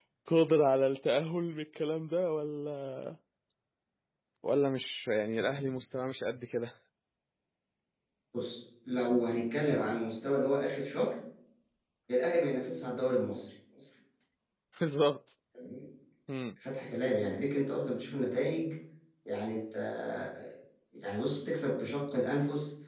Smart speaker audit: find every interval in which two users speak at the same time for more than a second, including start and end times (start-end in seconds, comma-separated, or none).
none